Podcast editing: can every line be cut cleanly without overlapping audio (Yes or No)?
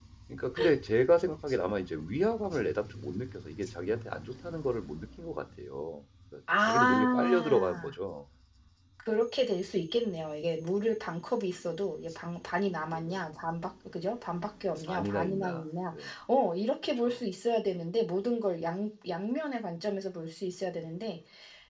No